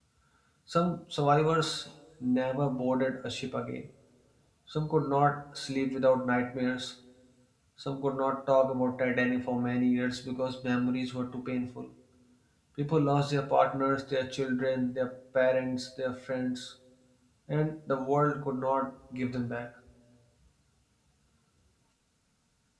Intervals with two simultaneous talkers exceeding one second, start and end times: none

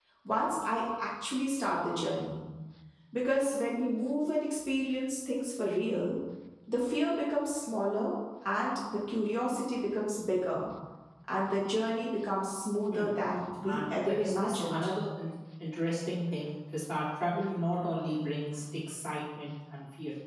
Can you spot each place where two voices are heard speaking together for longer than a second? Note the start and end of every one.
13.6-14.9

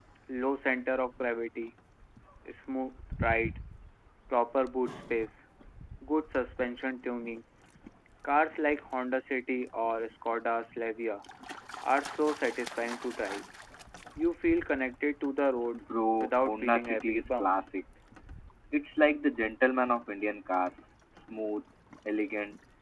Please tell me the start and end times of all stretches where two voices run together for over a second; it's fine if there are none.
16.2-17.5

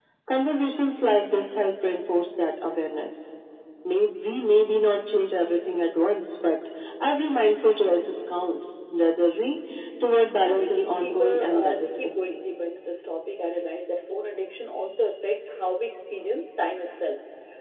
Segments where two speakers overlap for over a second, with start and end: 10.4-12.4

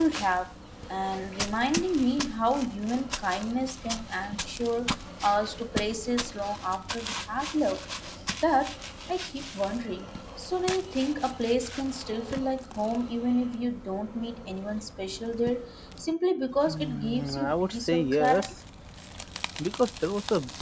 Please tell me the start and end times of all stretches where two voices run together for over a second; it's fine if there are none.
16.7-18.5

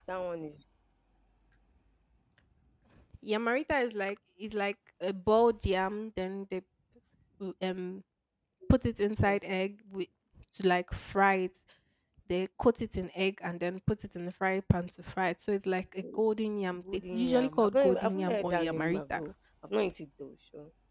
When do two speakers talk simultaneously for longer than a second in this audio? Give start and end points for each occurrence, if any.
17.1-19.2

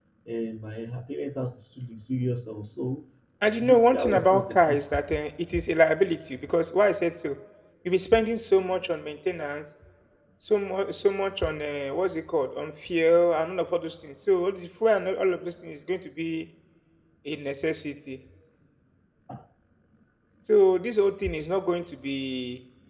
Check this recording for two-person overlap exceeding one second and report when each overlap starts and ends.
3.6-4.8

